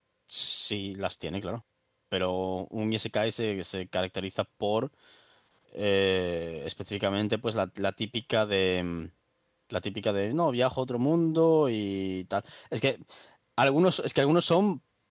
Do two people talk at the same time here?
No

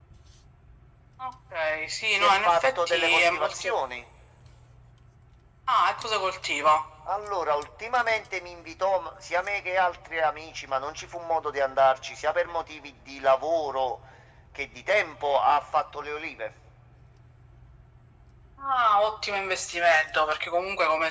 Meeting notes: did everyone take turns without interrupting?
No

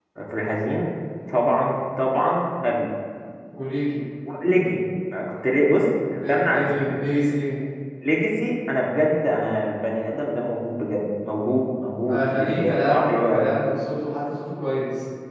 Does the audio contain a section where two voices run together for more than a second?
Yes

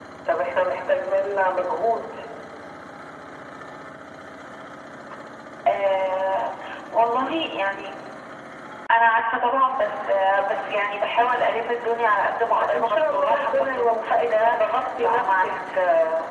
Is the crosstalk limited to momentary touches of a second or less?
No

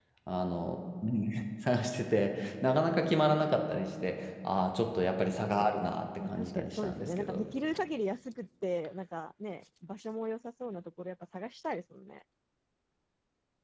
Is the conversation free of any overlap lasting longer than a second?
No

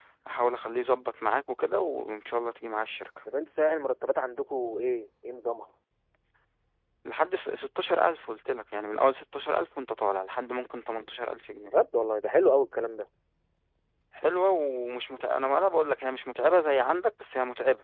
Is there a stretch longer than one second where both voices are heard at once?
No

